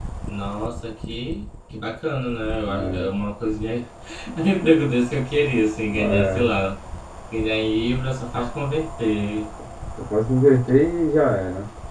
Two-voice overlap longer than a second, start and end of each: none

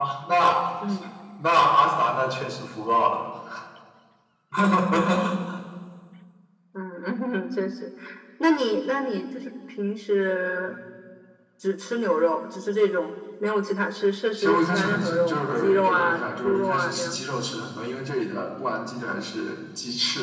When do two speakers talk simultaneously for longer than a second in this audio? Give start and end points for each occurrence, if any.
14.4-17.2

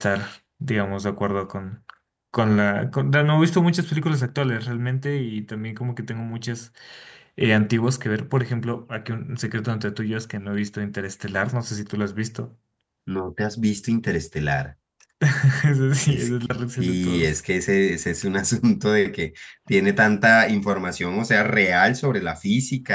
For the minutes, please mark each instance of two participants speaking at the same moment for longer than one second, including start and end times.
16.1-17.3

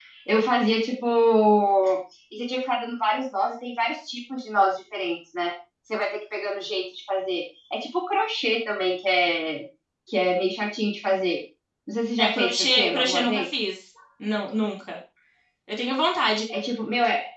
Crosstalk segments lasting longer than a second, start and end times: 12.2-13.4

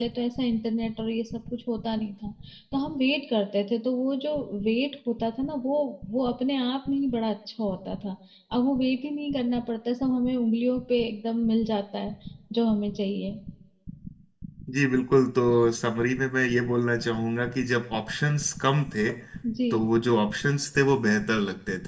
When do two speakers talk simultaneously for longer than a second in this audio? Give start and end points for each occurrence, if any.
none

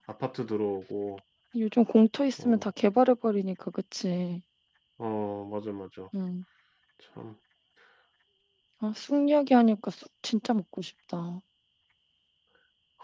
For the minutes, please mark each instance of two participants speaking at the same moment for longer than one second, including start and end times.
none

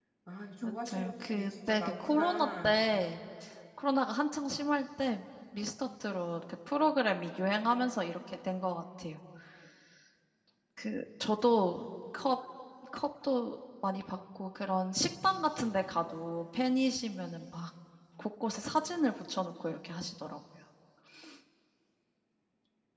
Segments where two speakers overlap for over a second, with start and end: 0.6-2.8

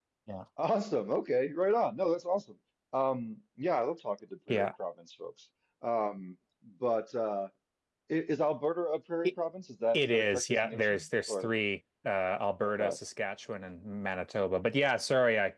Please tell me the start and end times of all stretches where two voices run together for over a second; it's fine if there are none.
9.9-11.5

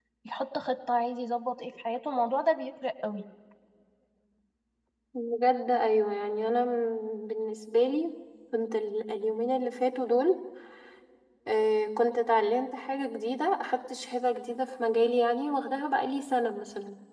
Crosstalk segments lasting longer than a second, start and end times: none

